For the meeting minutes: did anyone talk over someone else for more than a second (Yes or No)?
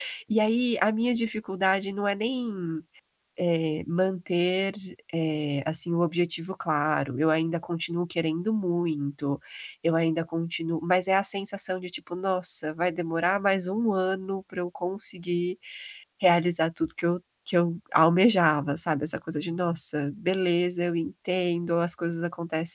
No